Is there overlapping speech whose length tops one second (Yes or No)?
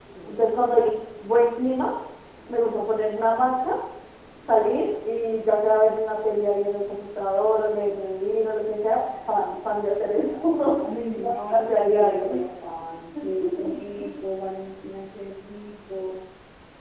Yes